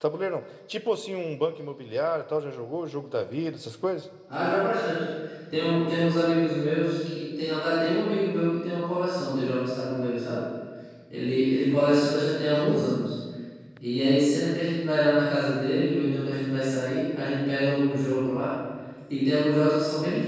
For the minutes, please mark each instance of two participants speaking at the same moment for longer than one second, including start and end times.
none

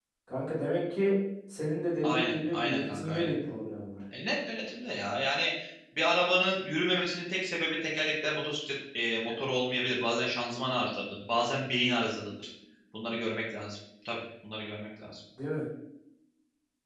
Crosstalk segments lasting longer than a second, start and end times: 2.0-3.3

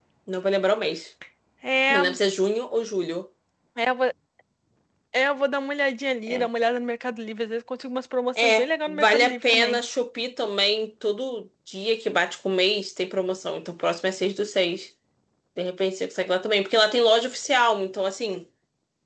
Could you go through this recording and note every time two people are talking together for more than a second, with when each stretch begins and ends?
8.4-9.8

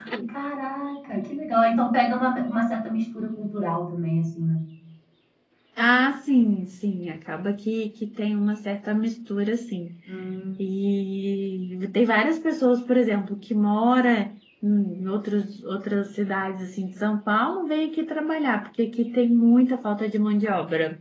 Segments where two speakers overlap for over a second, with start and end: none

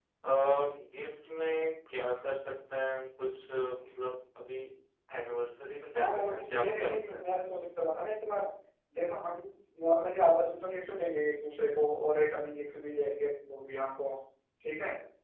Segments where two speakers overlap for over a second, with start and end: 6.0-7.2

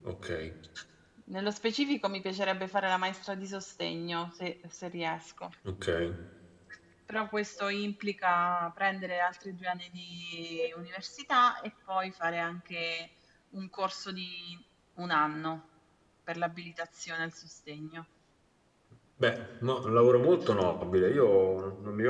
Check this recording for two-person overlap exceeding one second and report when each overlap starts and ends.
none

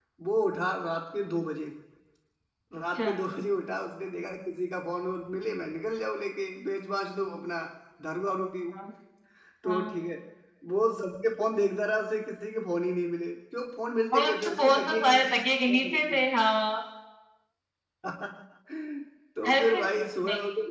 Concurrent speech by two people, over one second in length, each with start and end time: 14.2-16.2

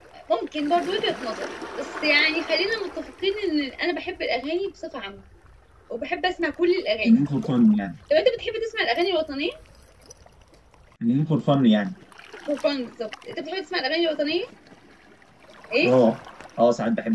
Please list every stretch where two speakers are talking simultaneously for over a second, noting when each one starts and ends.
none

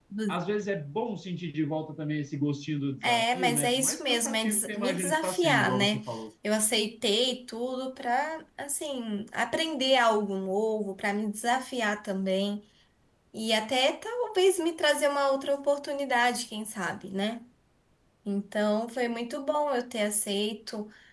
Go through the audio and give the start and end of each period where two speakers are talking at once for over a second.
3.0-6.0

